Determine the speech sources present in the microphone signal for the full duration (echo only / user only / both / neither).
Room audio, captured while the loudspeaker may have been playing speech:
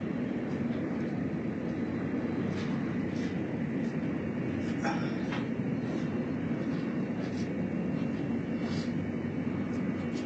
neither